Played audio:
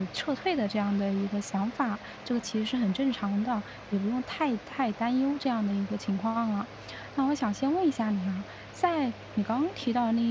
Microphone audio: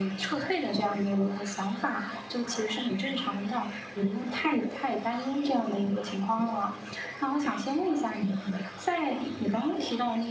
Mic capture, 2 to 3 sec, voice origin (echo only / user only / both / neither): echo only